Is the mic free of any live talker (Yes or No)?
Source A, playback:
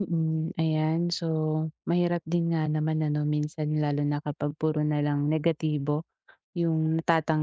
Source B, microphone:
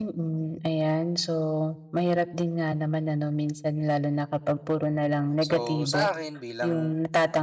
No